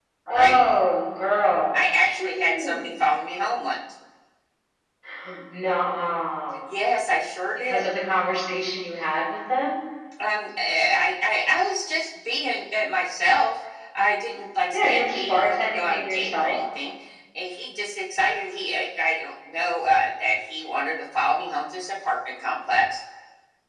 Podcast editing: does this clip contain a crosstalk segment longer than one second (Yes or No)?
Yes